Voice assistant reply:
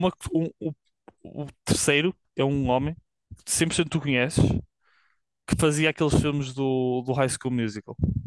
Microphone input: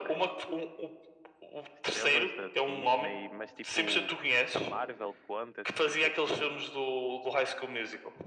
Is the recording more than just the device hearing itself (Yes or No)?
Yes